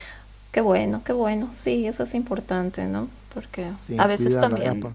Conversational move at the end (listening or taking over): listening